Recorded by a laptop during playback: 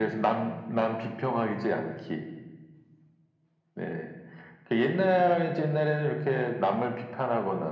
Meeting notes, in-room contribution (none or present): none